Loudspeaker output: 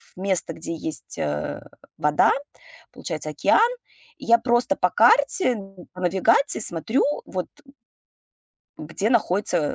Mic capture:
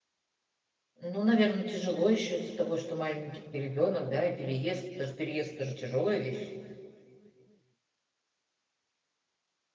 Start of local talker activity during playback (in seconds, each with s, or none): 1.0 s